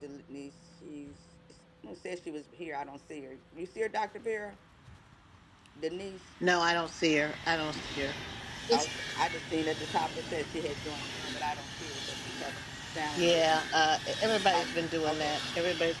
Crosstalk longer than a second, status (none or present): none